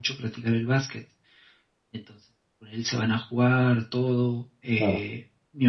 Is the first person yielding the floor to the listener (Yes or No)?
No